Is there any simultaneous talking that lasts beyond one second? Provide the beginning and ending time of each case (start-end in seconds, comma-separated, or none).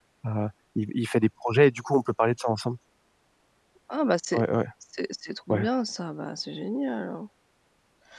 none